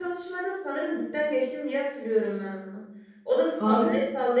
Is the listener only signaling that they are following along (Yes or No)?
Yes